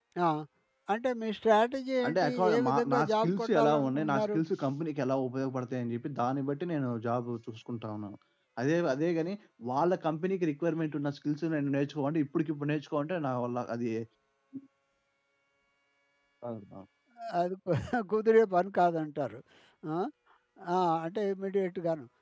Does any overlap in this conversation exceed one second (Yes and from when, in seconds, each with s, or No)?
Yes, from 2.0 s